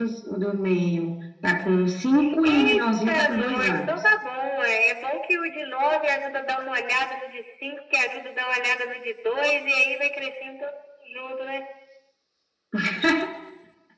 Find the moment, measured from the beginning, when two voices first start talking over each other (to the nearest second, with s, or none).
2 s